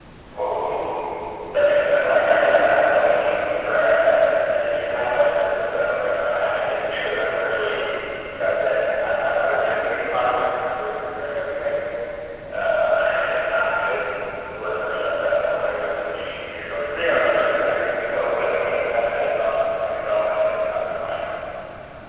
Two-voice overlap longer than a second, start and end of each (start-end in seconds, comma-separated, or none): 1.9-3.5